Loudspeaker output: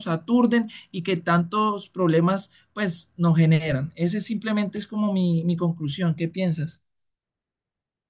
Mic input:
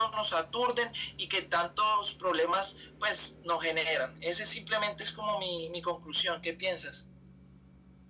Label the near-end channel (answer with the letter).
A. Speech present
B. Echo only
B